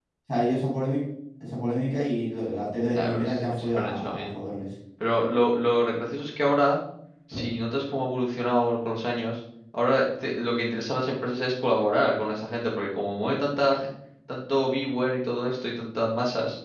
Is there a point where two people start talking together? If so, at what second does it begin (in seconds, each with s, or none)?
2.9 s